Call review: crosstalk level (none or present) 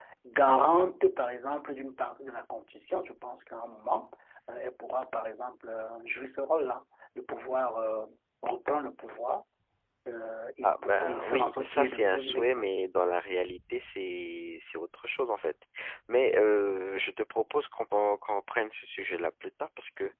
present